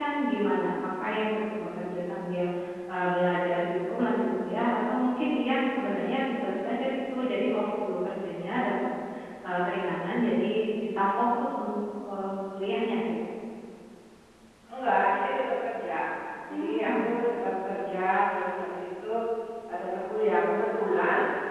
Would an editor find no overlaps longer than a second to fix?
Yes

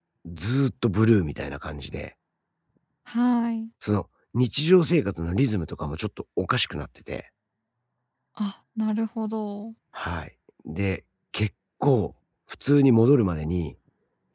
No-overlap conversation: Yes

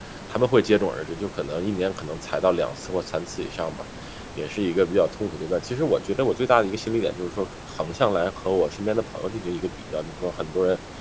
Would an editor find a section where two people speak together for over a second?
No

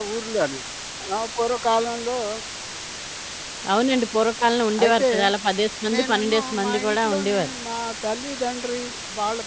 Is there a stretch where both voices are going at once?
Yes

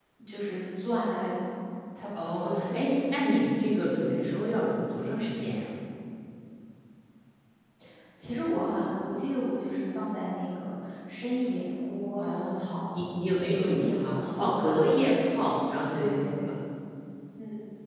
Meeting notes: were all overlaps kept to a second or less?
No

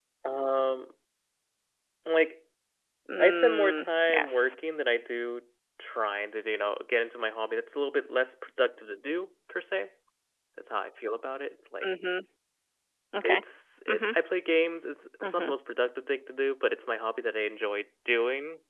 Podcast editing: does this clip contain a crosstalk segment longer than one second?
Yes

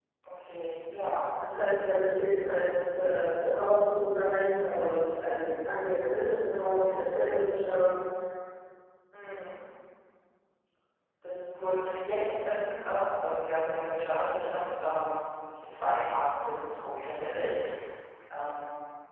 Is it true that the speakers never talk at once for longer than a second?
Yes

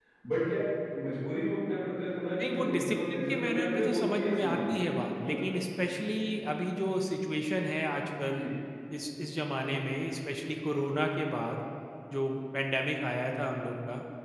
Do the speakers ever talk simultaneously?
Yes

